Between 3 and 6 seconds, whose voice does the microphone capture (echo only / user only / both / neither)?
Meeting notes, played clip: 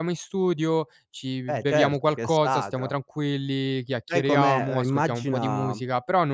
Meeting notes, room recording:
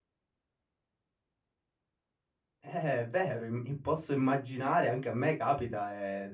user only